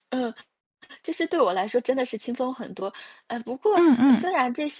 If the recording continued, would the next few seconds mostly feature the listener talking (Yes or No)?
No